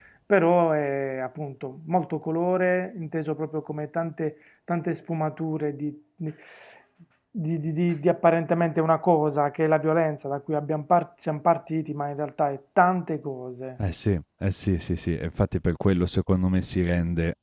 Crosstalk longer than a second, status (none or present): none